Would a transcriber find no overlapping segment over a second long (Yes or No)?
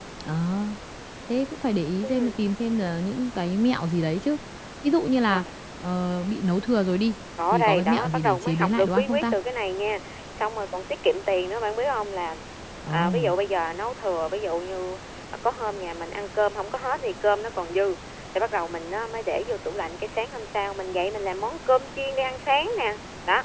No